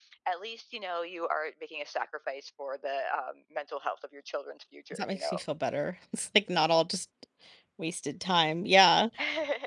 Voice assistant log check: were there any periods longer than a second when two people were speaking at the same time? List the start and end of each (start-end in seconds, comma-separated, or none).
none